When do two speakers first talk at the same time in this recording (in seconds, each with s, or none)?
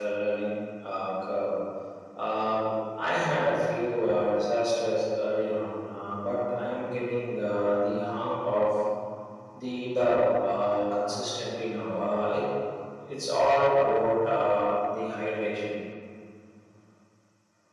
none